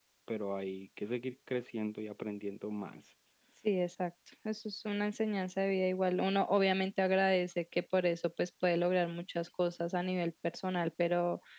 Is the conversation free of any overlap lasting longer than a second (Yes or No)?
Yes